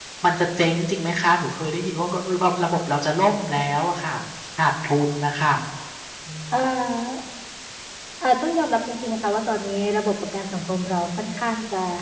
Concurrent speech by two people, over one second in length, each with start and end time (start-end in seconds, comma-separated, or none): none